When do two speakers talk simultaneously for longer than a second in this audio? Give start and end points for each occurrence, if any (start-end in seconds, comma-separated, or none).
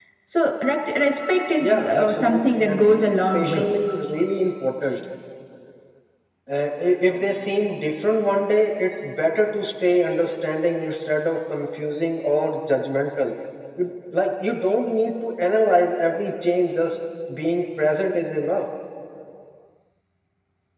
1.6-3.8